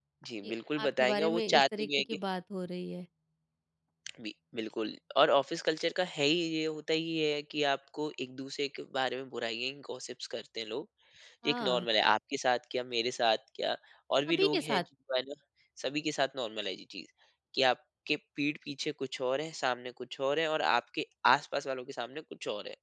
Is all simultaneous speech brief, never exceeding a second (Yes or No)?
No